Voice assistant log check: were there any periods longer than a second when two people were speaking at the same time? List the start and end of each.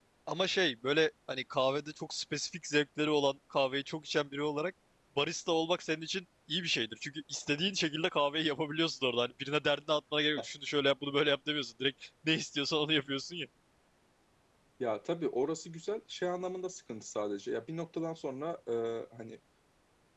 none

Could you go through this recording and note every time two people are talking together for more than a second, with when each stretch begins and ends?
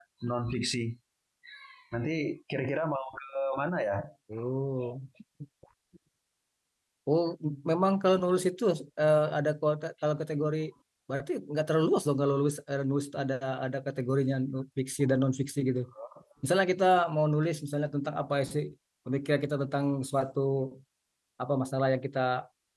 none

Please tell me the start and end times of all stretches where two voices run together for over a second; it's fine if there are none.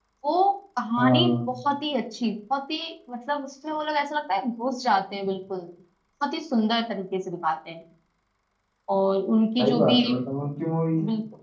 none

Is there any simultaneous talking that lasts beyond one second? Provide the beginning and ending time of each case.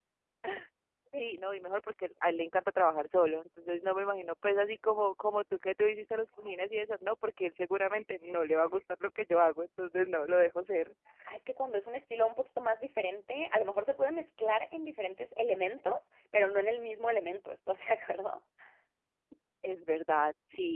none

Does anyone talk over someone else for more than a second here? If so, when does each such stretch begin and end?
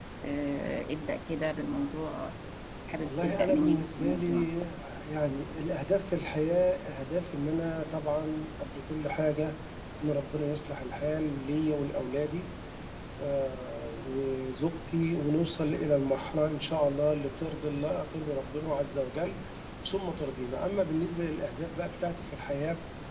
3.0-4.5

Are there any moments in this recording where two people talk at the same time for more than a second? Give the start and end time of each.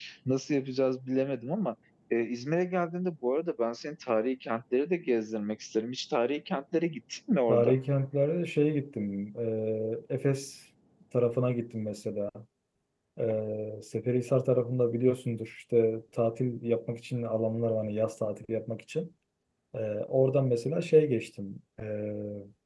none

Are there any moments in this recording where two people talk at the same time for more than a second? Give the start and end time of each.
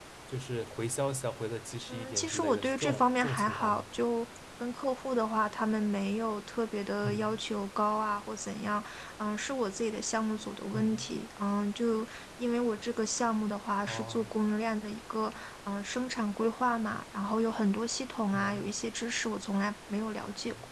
1.9-3.8

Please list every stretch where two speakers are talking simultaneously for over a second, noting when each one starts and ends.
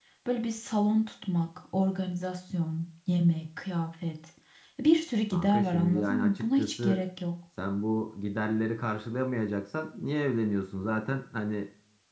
5.3-7.0

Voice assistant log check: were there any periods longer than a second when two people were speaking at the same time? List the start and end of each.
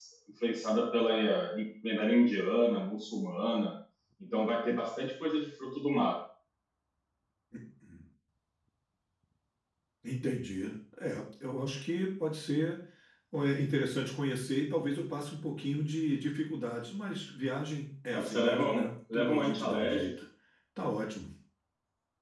18.1-20.2

